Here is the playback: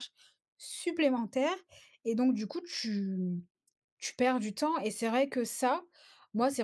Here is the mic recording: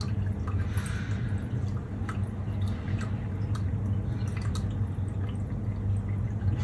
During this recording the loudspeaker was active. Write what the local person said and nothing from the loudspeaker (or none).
none